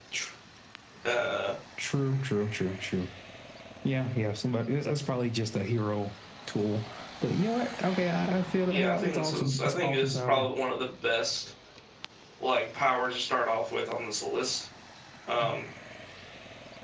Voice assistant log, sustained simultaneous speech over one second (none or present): present